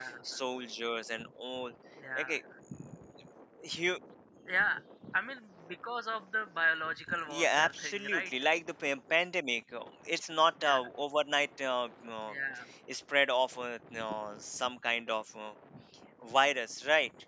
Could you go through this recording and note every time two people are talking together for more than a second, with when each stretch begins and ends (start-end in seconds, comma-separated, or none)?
7.0-8.3